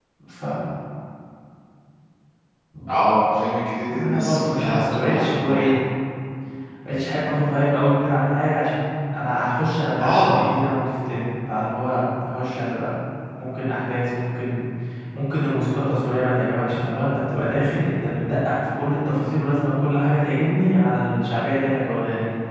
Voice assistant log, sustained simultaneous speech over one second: present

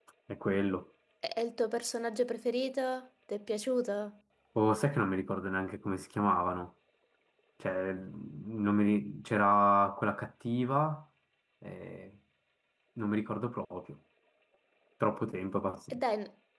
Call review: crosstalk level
none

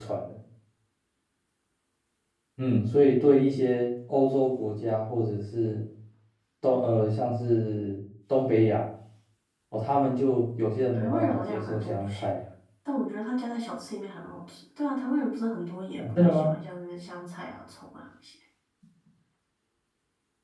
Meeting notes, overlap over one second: present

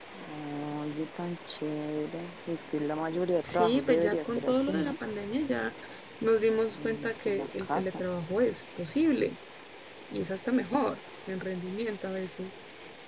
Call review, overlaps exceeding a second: present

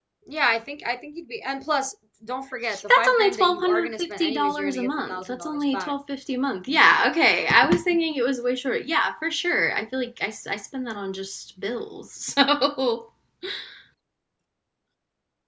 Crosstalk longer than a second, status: present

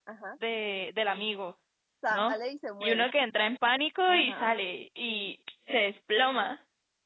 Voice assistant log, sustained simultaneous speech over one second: none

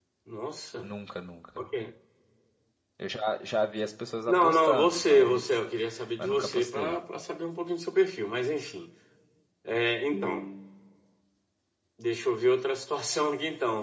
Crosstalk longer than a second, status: present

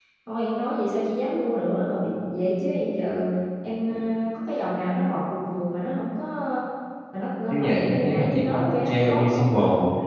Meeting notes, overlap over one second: present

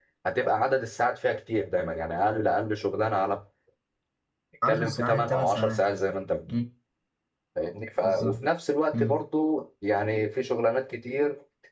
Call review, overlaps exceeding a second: present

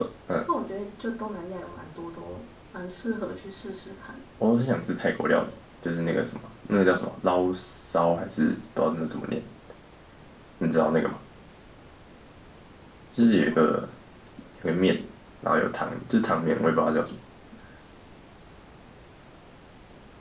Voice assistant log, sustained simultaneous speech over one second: none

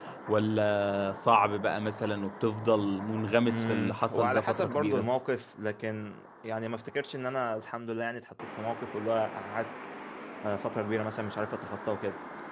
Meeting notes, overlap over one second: present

